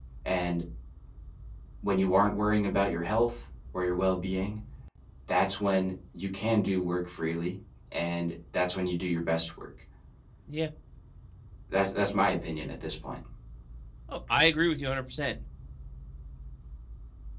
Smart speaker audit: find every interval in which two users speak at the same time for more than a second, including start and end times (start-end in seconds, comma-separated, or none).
none